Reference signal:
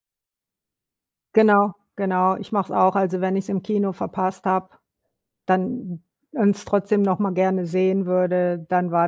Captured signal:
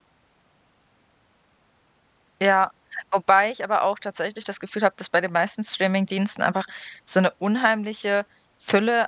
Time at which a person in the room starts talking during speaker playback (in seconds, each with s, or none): 2.4 s